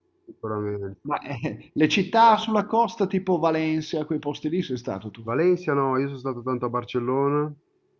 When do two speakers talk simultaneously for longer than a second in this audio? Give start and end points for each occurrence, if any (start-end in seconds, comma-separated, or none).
none